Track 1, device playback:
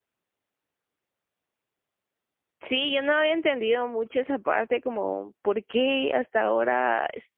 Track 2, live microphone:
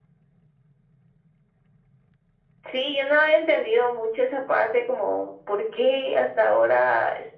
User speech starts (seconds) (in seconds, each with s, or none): none